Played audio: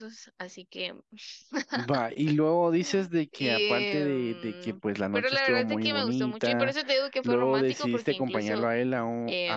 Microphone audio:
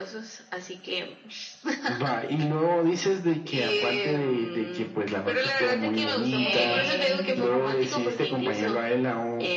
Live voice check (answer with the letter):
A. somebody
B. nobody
A